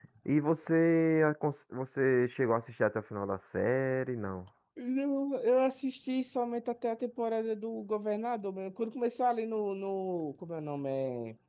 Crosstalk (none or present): none